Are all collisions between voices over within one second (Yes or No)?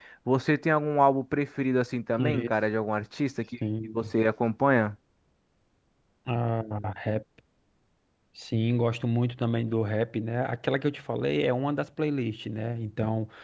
Yes